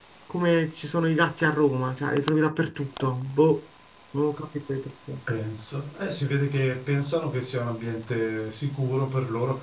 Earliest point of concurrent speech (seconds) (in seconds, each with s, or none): none